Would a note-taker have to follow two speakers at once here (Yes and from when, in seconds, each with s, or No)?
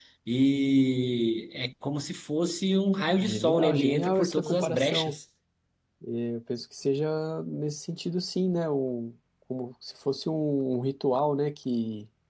Yes, from 3.2 s